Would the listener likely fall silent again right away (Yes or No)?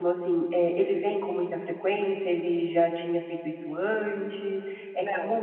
Yes